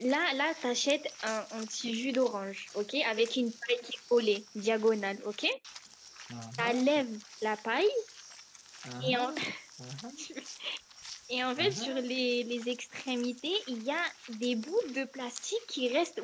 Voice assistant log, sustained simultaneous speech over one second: none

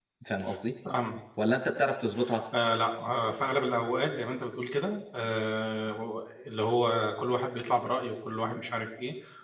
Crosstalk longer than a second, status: none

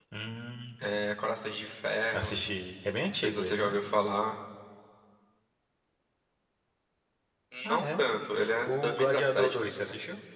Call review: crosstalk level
present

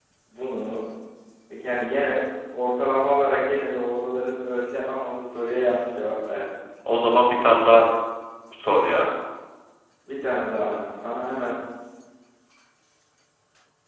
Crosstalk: none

